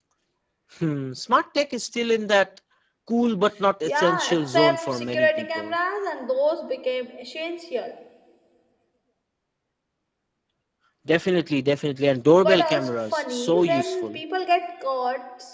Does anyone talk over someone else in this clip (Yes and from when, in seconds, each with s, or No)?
Yes, from 3.8 s